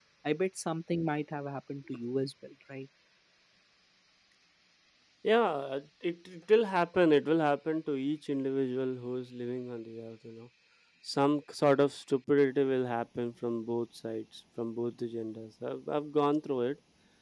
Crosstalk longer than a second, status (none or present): none